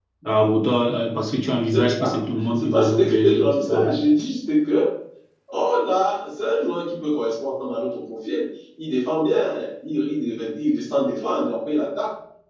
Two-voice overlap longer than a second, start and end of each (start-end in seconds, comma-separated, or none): 2.5-3.9